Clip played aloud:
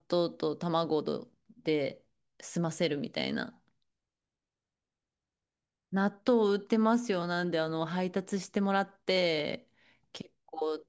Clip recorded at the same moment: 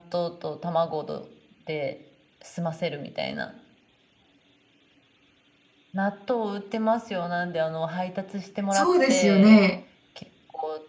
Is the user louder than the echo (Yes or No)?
Yes